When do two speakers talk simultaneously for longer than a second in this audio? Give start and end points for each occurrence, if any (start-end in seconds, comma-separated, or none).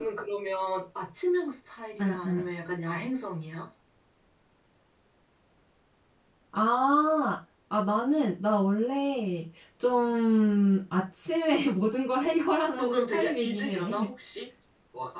12.8-14.1